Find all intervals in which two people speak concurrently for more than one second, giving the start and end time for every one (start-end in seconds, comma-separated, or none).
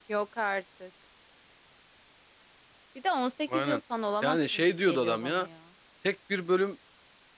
4.2-5.5